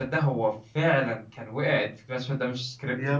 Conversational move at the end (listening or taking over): listening